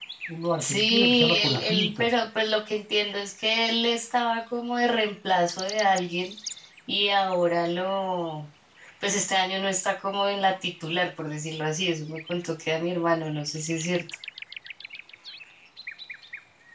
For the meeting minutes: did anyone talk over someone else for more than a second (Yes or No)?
Yes